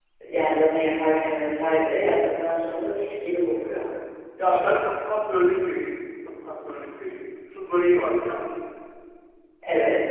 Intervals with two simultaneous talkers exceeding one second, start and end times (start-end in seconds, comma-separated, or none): none